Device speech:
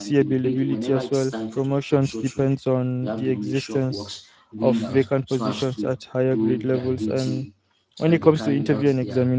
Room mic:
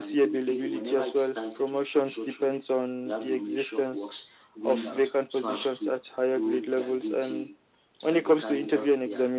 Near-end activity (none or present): none